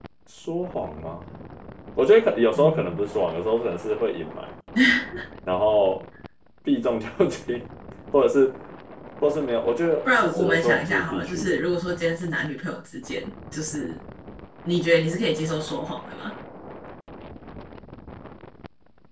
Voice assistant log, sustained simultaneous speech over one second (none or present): present